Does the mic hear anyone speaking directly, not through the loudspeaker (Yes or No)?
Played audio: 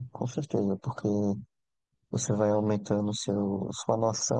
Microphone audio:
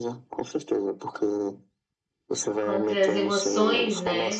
Yes